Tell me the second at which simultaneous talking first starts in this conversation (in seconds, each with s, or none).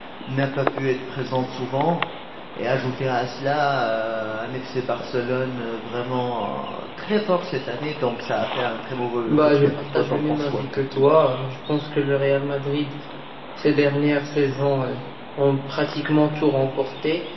9.3 s